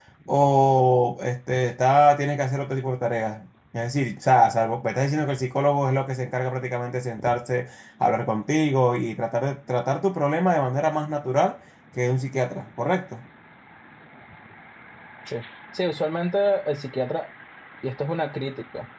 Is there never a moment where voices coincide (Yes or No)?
Yes